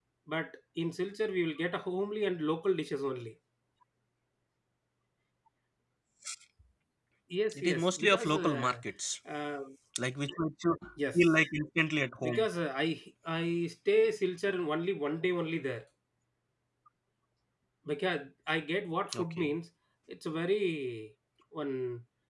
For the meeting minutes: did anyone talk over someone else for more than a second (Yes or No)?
Yes